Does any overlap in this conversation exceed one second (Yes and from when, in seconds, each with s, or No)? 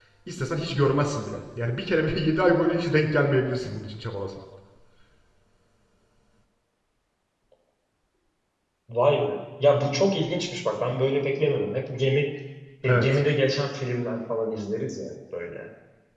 No